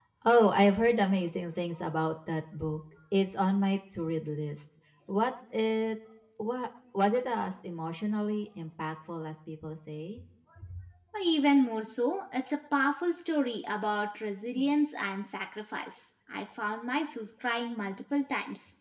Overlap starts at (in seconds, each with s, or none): none